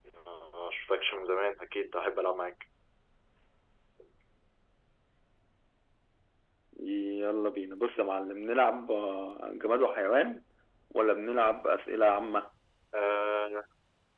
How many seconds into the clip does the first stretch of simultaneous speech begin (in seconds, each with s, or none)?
none